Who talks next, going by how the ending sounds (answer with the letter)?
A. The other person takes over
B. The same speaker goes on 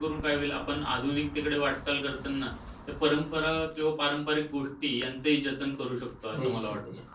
A